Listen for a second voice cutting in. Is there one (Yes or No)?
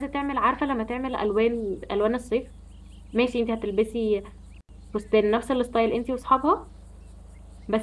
No